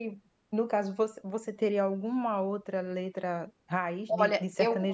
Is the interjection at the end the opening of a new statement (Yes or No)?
Yes